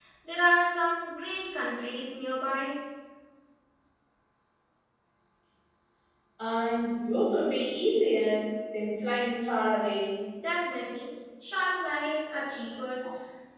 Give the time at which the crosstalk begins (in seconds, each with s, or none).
none